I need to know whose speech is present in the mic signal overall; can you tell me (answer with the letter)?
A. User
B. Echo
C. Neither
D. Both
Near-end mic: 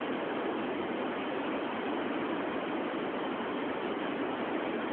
C